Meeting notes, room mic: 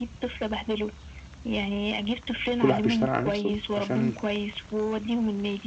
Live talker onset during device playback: 2.6 s

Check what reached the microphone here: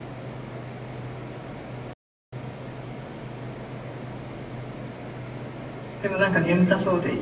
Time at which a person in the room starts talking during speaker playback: 6.0 s

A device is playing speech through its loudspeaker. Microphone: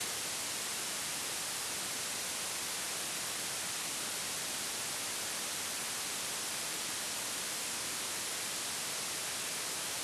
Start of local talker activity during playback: none

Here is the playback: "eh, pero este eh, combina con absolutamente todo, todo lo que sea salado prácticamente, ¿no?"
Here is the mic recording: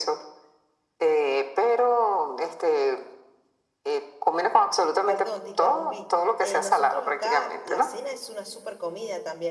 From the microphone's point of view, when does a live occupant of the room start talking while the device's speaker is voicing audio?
5.0 s

